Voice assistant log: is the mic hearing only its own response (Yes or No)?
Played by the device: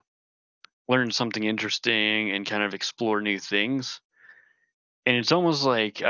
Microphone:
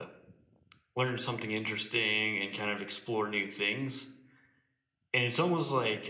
Yes